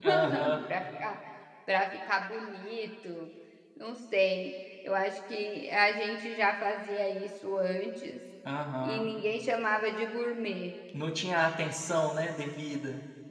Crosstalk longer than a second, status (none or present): none